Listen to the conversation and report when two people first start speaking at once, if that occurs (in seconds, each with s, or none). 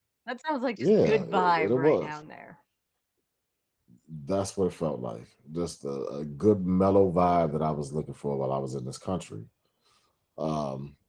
0.8 s